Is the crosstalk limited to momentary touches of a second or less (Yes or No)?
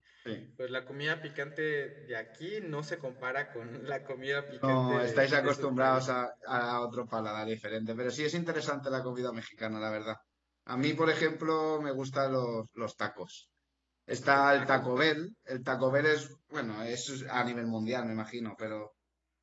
No